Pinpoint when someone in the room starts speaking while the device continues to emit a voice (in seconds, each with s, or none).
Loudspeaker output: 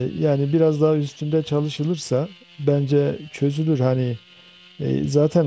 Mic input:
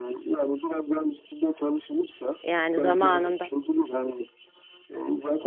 2.4 s